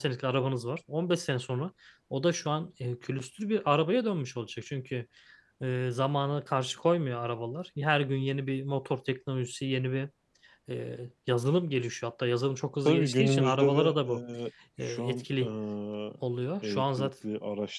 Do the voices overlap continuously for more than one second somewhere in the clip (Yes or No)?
Yes